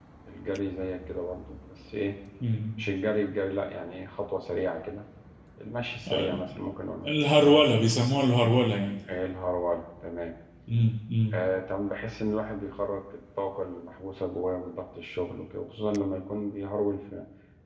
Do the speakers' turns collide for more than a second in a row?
No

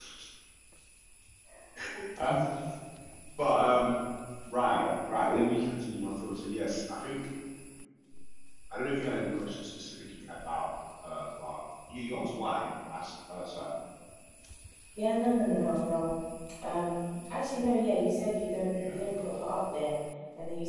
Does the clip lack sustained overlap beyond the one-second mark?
Yes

